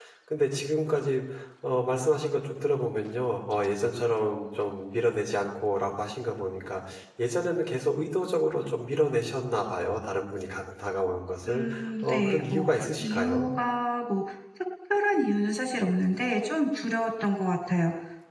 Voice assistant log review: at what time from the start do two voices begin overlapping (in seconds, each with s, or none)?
11.5 s